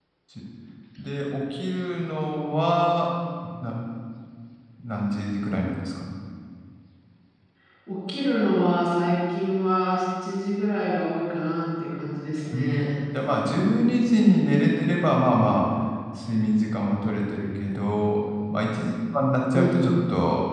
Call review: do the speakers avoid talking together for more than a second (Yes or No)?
Yes